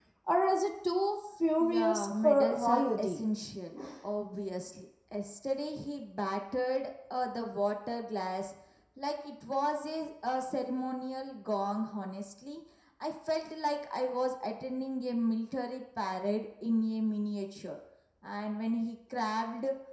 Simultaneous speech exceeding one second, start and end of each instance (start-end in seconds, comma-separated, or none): 1.6-3.2